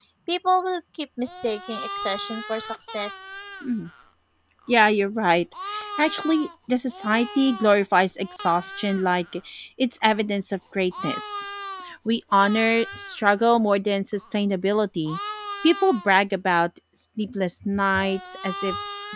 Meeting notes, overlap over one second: none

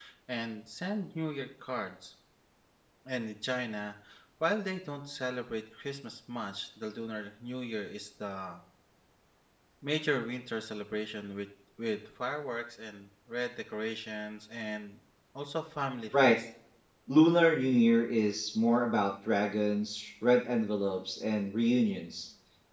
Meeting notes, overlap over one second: none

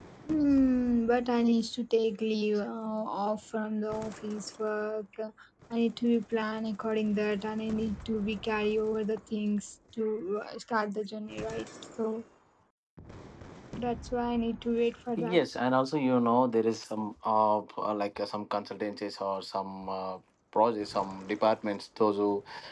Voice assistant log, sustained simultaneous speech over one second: none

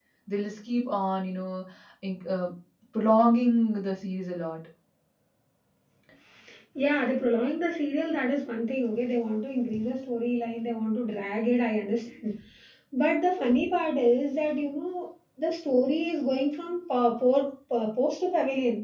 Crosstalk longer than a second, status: none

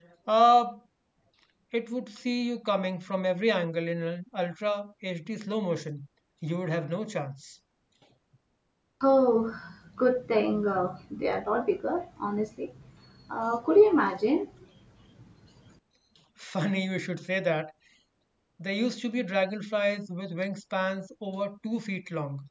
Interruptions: none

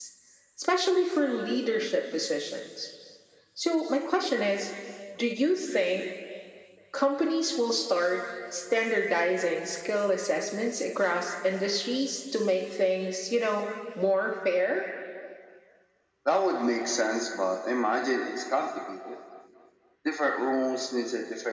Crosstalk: none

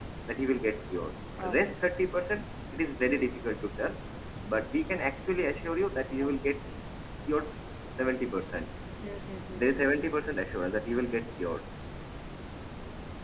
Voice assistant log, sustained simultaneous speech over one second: none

